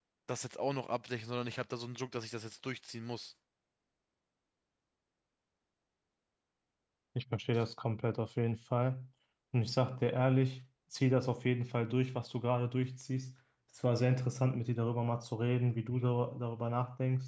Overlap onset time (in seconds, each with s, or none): none